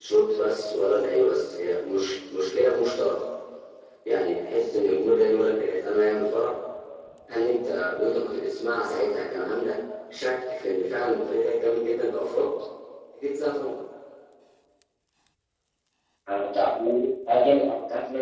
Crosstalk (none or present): none